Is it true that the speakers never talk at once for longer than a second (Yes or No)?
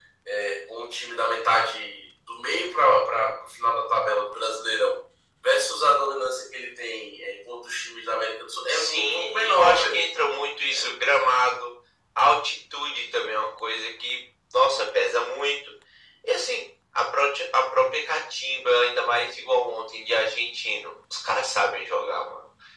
No